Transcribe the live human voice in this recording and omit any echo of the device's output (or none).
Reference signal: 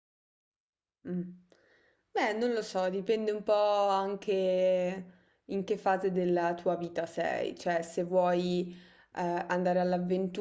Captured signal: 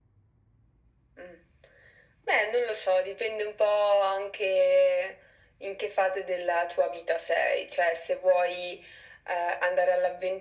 none